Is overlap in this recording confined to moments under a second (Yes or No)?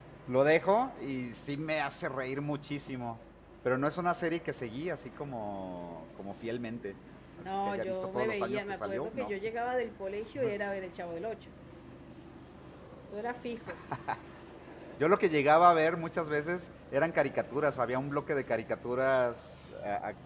No